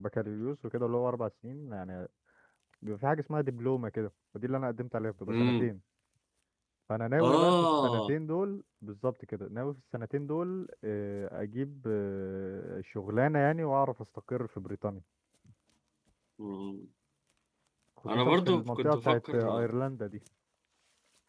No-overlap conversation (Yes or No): No